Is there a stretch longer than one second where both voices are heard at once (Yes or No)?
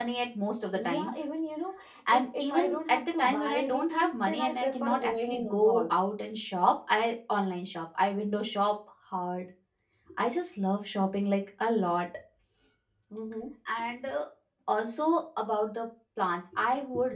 Yes